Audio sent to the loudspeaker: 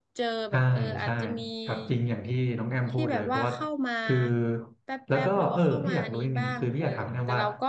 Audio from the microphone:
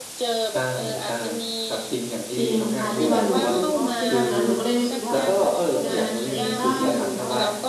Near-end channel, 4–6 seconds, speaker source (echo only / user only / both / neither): both